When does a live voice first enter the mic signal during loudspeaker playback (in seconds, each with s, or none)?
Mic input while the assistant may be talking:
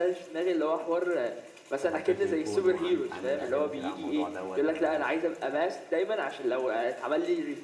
1.8 s